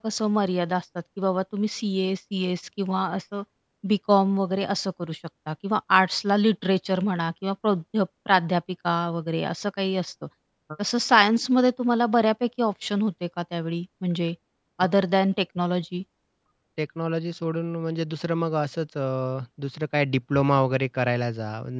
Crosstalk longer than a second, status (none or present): none